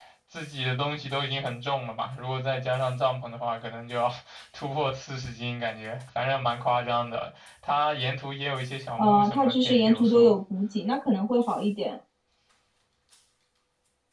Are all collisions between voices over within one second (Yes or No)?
No